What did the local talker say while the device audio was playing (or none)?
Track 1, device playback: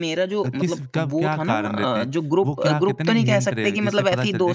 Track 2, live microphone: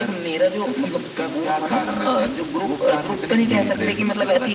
जी, जी।